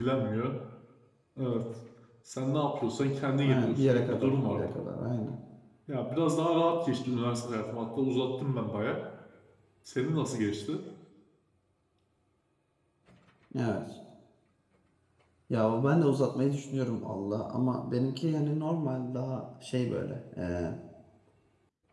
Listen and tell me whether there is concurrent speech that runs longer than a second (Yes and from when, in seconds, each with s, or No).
Yes, from 3.4 s